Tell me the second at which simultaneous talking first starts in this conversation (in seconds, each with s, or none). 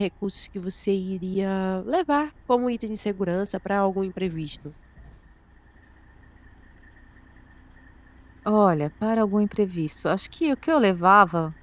none